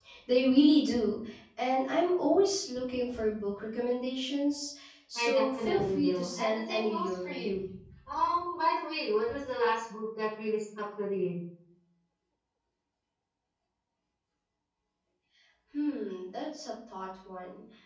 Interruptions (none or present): present